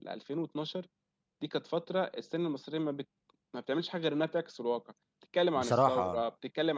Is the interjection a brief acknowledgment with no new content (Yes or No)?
Yes